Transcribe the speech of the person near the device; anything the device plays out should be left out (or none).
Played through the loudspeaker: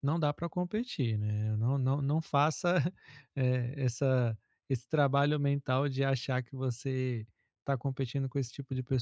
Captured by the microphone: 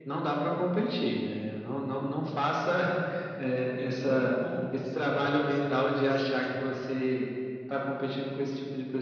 E o segundo ponto, assim, que seria interessante,